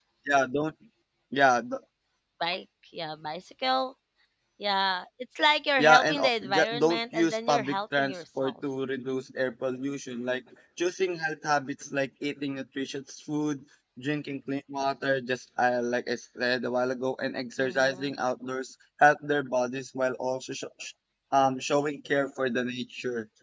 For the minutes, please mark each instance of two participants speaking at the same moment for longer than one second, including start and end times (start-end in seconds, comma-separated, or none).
5.8-8.5